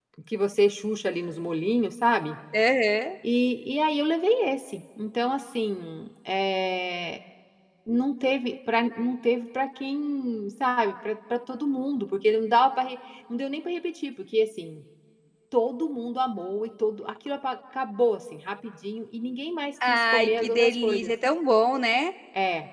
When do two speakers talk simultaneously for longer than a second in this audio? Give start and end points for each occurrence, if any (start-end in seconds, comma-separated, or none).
19.9-21.1